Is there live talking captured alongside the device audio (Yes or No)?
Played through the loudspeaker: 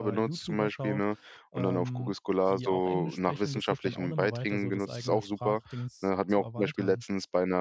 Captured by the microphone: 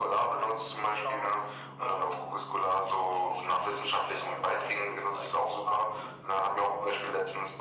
No